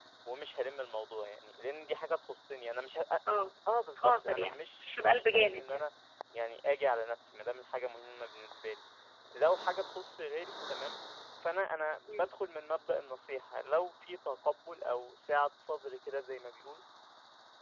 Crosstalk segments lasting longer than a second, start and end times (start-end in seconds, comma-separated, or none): 4.0-5.9